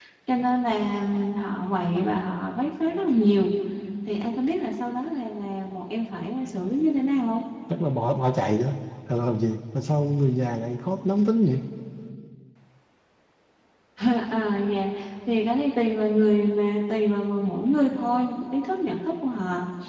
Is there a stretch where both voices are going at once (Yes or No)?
No